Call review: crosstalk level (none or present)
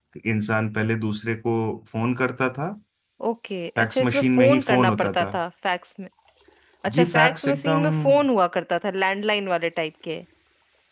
present